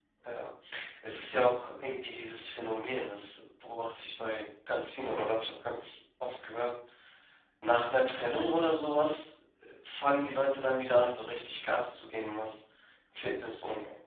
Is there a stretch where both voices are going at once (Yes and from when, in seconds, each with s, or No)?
No